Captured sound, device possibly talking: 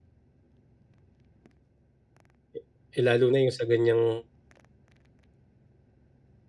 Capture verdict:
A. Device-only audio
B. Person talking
B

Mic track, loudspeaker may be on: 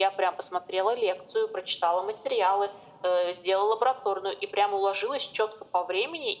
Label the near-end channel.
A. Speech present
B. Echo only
B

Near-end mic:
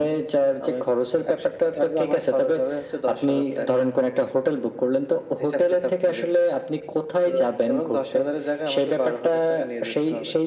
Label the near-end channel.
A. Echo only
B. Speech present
A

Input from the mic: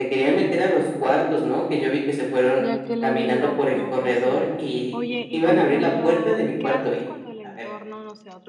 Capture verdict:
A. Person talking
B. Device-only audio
A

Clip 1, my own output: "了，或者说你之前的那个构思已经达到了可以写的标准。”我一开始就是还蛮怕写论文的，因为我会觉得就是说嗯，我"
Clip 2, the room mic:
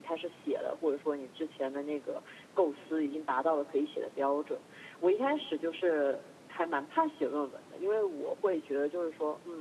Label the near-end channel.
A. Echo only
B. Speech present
A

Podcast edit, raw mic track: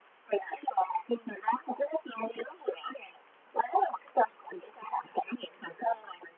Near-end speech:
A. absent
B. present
A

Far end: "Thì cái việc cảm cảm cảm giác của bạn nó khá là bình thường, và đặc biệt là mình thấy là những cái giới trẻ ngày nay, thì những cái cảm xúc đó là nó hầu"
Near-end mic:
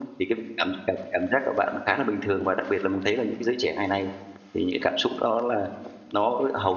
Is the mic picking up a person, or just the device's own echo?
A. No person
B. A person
A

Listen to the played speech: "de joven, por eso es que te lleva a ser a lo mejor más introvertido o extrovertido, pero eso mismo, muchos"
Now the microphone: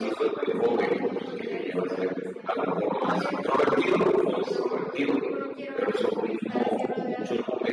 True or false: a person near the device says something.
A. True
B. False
A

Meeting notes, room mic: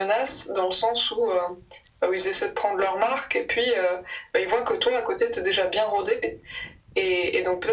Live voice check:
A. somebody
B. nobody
B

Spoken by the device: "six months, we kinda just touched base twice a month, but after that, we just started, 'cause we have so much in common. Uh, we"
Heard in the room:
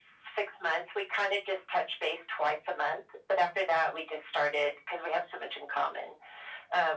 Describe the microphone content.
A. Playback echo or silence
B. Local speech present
A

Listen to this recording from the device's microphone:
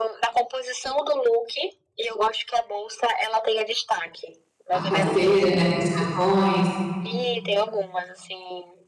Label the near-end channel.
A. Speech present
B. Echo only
A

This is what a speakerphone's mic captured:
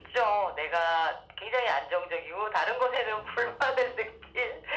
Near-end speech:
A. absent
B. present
A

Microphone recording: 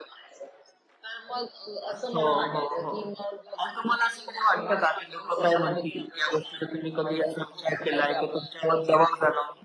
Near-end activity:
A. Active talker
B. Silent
B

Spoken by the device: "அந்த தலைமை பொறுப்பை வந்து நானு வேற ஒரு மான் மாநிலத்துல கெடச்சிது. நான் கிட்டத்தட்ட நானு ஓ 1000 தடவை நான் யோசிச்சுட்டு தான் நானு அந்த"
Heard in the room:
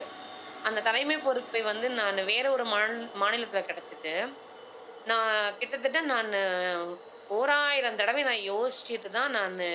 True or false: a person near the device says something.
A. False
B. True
A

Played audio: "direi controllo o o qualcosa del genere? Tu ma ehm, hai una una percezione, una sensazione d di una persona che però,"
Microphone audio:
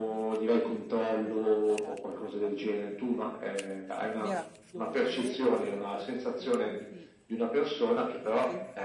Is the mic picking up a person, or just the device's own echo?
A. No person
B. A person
B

